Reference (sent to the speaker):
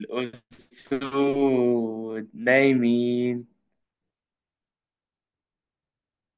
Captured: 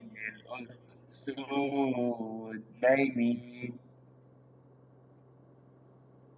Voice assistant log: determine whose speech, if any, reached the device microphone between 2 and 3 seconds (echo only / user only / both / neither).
echo only